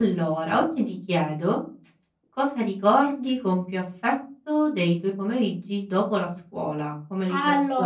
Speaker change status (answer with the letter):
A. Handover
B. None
A